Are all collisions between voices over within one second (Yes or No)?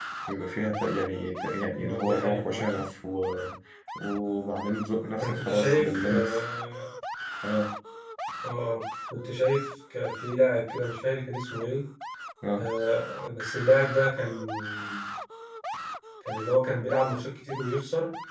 No